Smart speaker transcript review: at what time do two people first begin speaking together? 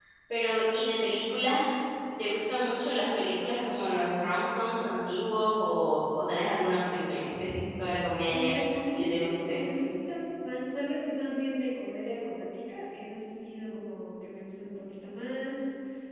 8.2 s

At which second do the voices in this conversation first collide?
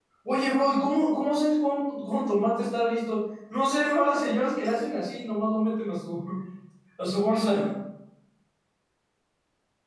none

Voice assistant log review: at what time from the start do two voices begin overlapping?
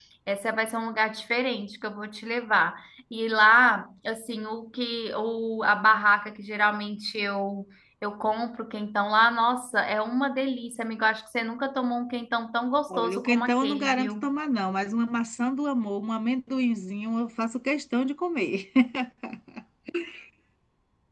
12.9 s

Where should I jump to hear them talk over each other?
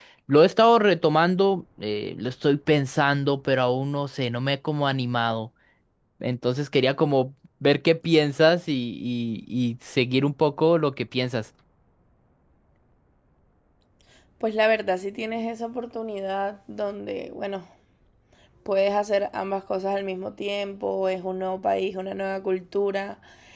none

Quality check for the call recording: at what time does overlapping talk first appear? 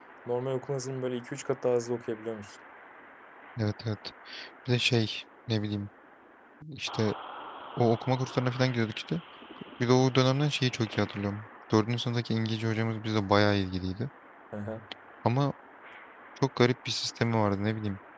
none

